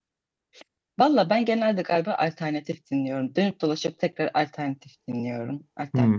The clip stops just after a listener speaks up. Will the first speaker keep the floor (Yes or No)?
Yes